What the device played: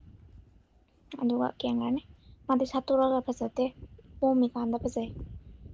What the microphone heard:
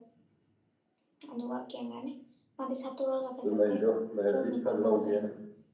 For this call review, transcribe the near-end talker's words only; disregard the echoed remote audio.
ꯑꯗꯨ ꯂꯩꯗꯣ ꯂꯩꯔꯗꯤ ꯈꯔ ꯂꯧꯒꯦꯅ

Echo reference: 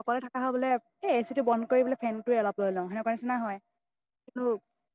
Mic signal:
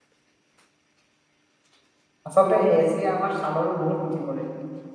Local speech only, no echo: আচলতে এ চিয়ে আমাৰ ছালৰো বহুত ক্ষতি কৰে।

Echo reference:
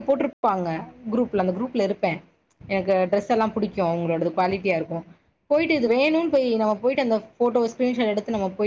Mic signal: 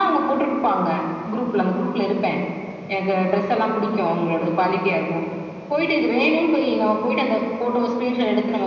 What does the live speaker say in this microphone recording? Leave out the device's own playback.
none

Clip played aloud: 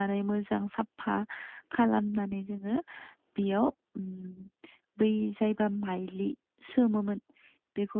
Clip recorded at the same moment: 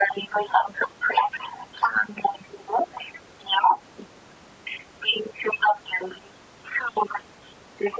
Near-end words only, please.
none

